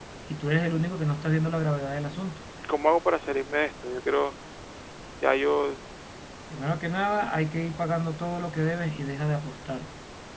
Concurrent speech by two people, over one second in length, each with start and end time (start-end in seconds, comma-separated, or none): none